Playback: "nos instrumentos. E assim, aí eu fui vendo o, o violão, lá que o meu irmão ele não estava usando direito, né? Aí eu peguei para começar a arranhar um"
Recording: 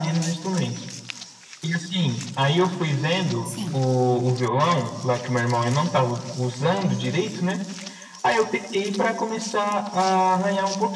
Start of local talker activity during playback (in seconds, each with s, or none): 3.4 s